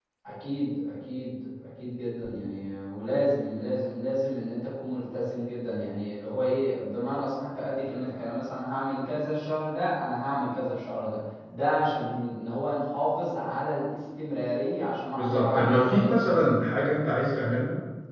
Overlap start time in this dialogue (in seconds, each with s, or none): 15.1 s